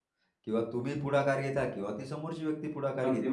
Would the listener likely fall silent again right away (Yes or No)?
No